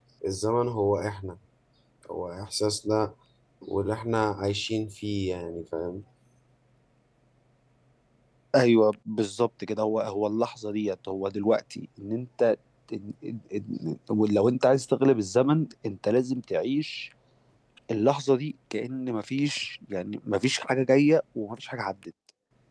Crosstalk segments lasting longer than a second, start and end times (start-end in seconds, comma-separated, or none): none